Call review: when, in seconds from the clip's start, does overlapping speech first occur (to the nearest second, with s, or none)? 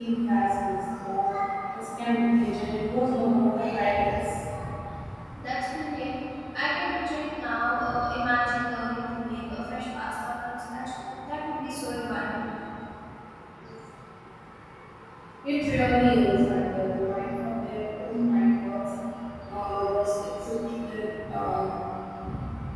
none